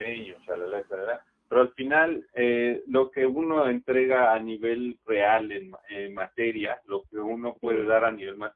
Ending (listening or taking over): listening